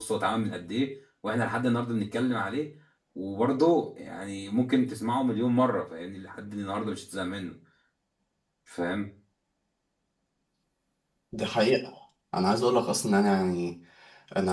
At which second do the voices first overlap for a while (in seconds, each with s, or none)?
none